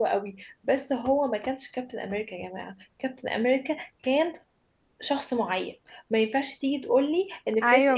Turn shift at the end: No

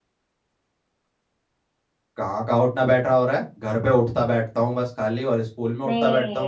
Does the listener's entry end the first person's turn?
Yes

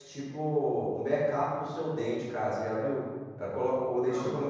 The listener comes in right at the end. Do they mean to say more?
No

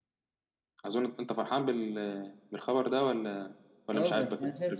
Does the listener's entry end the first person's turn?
Yes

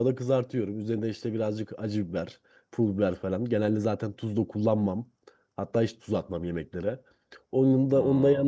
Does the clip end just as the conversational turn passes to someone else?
No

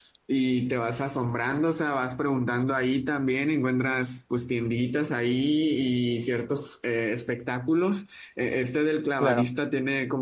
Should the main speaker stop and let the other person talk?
No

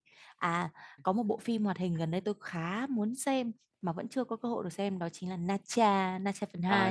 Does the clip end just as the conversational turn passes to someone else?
Yes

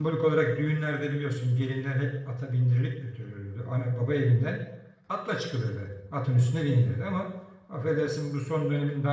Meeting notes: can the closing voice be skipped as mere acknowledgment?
Yes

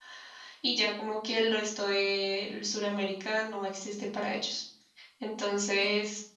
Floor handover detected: No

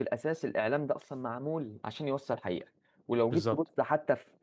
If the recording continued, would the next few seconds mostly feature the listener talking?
No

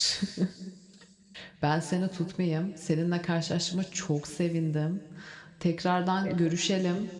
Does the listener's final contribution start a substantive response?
No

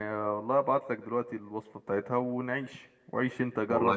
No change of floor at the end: No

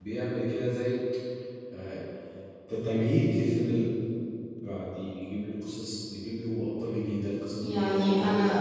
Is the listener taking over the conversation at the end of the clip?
No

